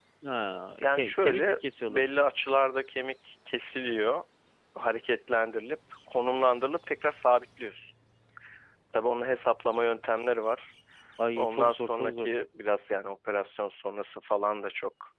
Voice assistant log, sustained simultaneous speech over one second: present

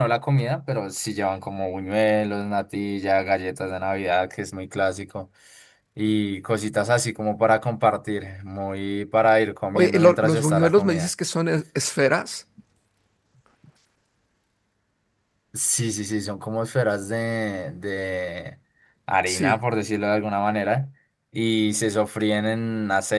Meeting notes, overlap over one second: present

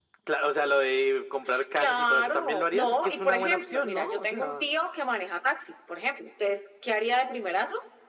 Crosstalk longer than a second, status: present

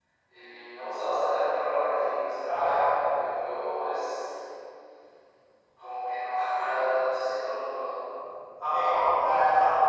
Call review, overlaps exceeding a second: none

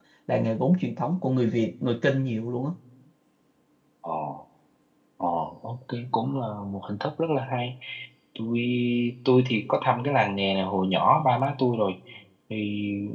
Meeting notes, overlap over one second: none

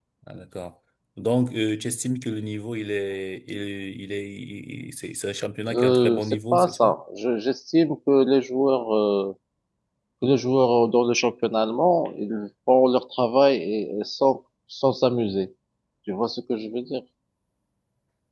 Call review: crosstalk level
present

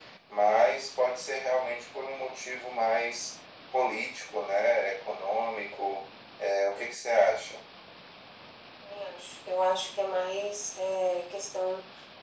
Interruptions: none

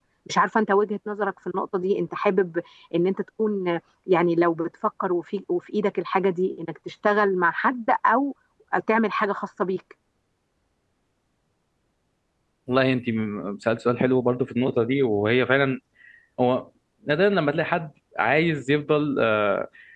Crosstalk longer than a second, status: none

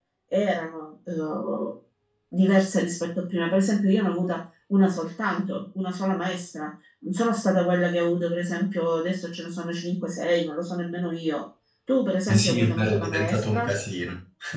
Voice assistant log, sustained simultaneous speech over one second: present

